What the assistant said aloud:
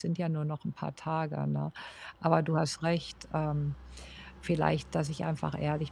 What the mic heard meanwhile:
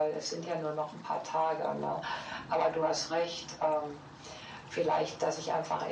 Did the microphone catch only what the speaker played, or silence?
Yes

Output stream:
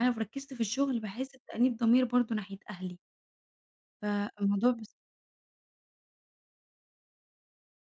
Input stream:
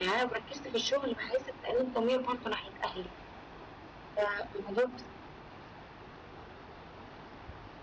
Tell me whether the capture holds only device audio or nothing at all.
Yes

